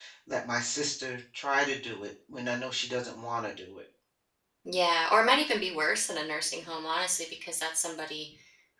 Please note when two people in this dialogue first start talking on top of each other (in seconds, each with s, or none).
none